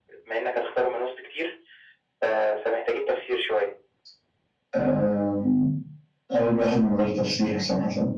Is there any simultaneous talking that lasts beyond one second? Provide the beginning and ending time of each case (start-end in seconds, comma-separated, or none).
none